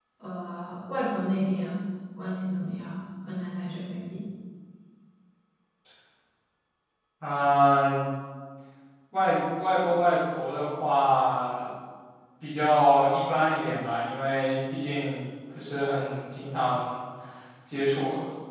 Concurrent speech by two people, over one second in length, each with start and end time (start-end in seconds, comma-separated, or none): none